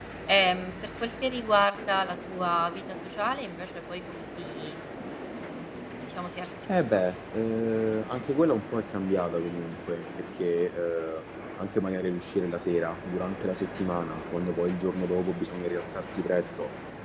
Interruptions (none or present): none